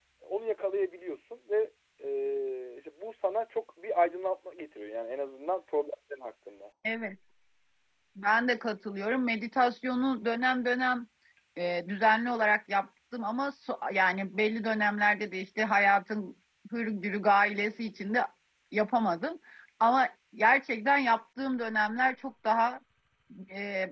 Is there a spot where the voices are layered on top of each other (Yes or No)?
No